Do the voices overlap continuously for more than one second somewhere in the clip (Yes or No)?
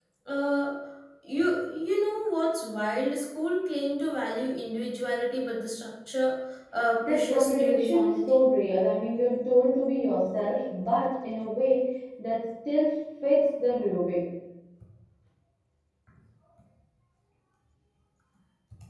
Yes